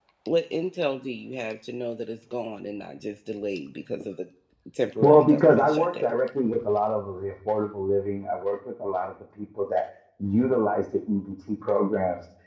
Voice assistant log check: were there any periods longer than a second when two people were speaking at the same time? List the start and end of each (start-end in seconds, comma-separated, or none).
5.0-6.2